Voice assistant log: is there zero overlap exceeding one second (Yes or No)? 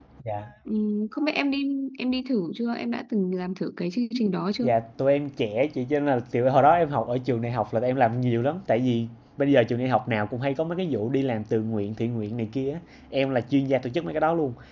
Yes